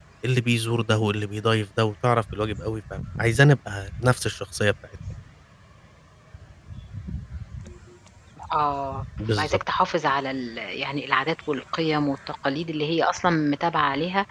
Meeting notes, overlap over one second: none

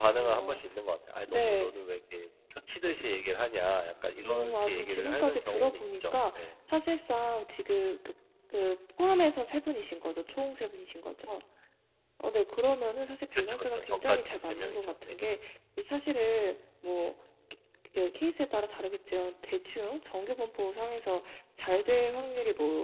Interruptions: present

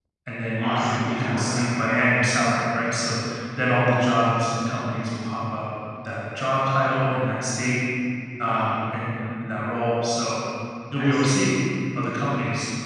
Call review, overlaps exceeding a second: present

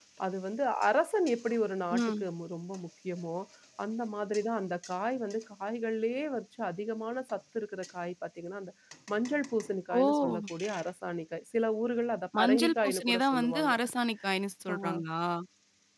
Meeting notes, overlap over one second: present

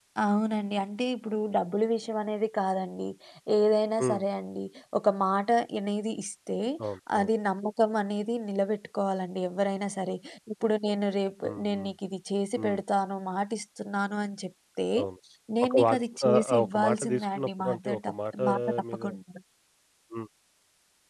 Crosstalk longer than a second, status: present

